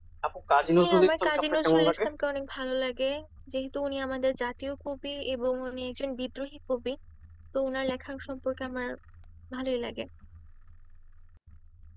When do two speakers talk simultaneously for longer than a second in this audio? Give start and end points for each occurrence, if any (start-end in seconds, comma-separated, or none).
0.8-2.0